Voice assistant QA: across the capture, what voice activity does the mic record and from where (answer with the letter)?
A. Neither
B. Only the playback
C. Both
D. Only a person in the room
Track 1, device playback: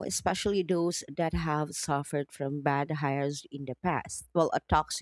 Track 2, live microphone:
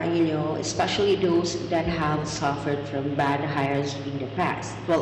B